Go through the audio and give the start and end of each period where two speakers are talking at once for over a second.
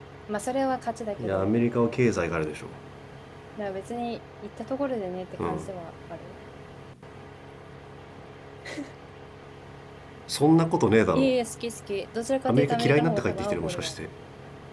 12.5-13.9

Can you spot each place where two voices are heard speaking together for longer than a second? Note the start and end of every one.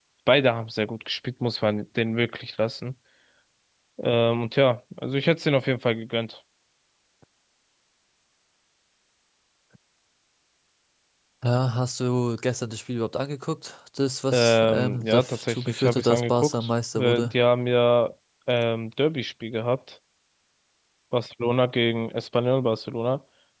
14.3-17.3

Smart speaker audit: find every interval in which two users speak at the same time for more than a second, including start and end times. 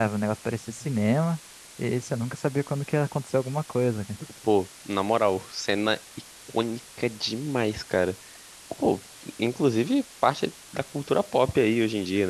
none

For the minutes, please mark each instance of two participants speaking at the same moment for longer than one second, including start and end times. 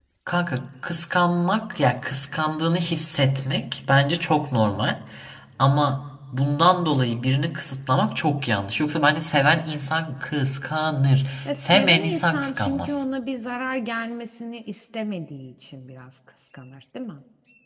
11.7-13.0

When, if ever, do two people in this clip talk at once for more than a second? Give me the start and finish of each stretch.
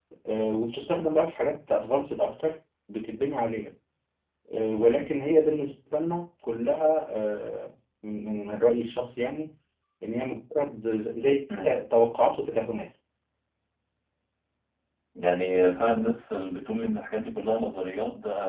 none

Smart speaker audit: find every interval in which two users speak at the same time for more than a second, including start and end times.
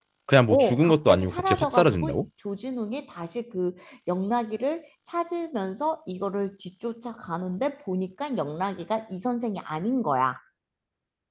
0.5-2.2

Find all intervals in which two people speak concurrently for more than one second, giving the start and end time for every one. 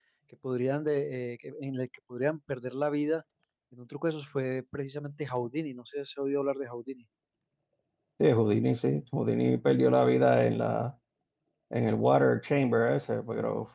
none

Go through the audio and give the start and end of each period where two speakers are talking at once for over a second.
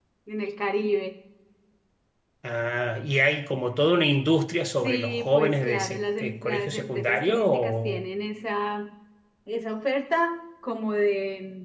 4.8-8.1

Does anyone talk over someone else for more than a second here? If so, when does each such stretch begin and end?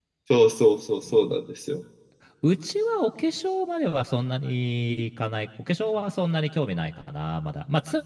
none

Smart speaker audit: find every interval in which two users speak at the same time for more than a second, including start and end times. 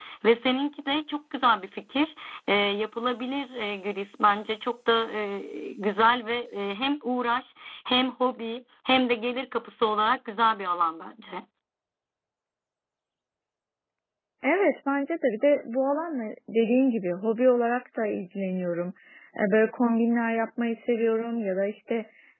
none

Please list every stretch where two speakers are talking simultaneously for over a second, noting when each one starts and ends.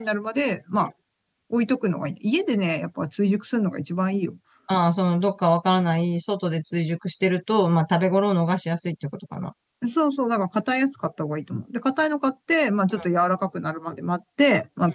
none

